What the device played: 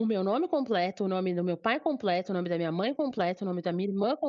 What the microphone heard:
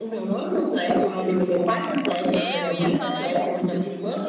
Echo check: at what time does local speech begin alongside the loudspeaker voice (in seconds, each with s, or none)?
2.3 s